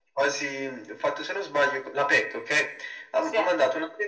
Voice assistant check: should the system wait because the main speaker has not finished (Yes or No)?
Yes